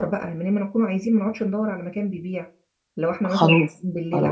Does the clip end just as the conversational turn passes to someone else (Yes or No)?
Yes